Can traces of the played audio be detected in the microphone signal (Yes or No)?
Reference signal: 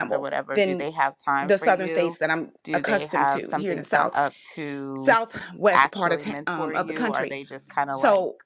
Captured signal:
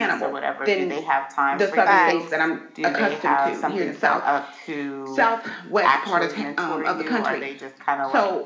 Yes